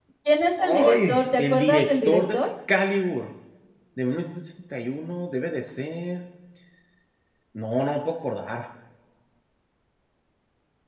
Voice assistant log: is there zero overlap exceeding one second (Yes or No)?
No